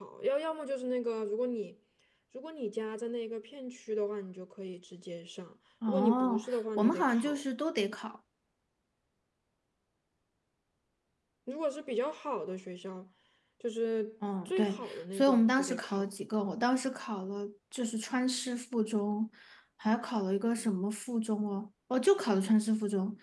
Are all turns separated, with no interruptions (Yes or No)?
No